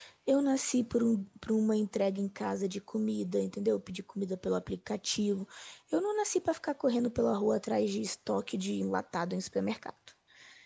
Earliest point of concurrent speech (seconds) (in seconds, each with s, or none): none